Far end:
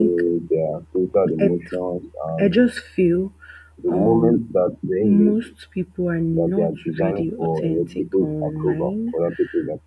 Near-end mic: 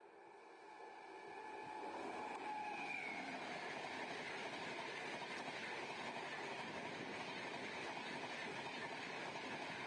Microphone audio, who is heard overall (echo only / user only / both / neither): neither